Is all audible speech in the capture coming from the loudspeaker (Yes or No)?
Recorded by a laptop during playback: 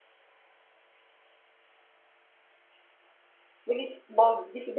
No